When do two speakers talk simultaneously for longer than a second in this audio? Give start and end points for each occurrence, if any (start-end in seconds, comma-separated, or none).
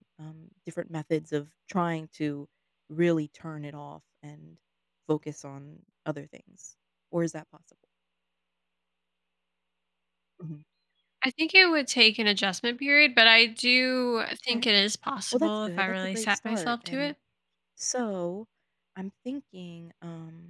15.3-17.1